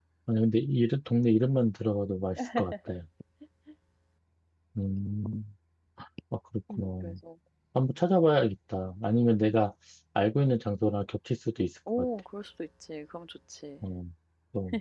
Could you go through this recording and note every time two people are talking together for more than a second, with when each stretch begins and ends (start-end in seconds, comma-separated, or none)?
none